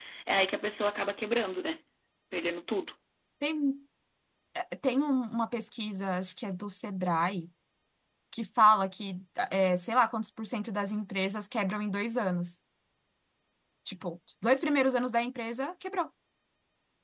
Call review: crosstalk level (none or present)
none